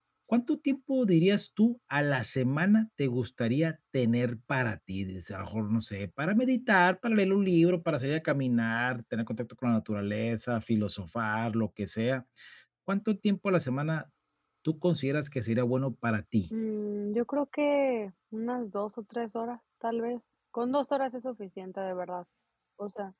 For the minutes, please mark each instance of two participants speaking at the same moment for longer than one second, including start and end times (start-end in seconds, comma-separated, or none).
none